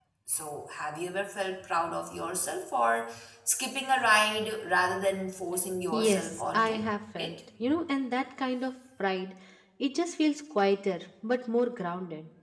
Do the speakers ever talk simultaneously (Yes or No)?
Yes